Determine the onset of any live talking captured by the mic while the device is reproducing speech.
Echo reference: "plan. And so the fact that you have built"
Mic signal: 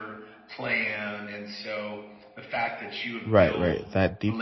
3 s

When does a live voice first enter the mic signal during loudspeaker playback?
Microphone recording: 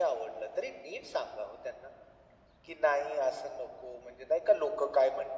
none

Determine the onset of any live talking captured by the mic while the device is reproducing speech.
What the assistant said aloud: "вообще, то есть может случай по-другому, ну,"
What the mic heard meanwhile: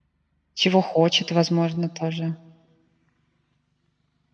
1 s

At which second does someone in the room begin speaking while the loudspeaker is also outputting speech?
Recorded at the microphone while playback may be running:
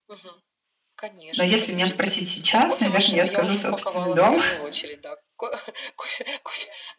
1 s

